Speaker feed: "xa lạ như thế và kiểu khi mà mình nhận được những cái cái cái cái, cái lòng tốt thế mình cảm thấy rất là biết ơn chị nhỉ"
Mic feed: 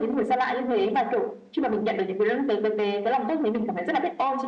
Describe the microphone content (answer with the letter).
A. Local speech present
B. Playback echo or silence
B